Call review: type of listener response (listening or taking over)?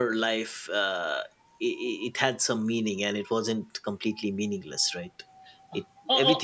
taking over